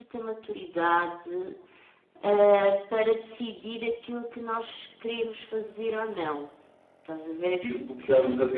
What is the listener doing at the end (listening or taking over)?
taking over